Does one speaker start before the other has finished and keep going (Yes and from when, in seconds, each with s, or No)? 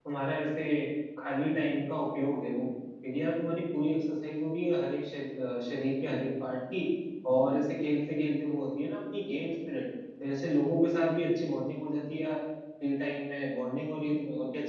No